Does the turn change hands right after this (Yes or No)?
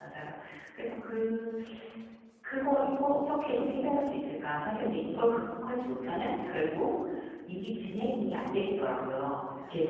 No